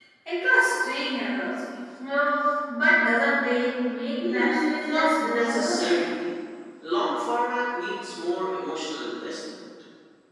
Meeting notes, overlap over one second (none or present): present